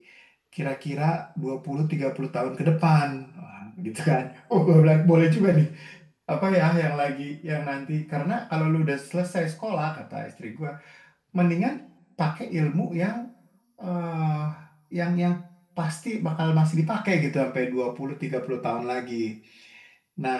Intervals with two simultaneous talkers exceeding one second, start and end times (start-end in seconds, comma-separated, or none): none